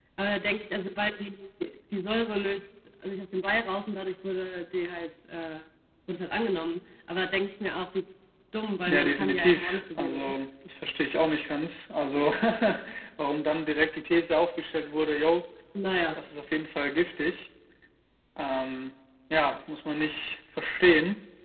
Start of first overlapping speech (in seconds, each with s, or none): 8.9 s